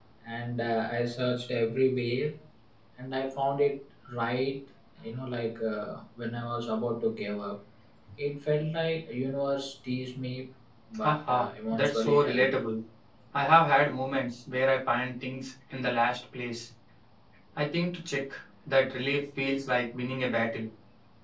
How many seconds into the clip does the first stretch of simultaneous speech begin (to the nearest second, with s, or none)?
11 s